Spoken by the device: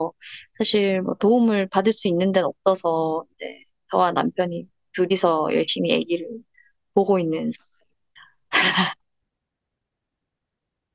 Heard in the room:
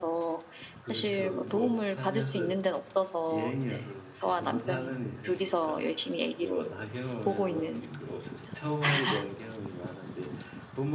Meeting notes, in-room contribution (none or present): present